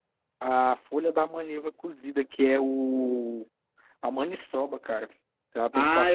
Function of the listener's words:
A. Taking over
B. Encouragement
A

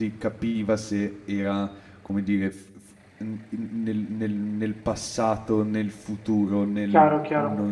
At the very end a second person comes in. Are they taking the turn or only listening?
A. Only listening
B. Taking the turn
B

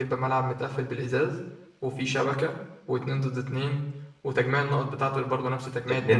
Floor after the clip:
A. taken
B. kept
A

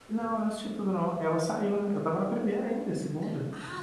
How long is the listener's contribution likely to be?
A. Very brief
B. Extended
B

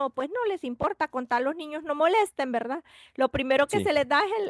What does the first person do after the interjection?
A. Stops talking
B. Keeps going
B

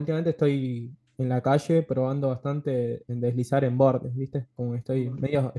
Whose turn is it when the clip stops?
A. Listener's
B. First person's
B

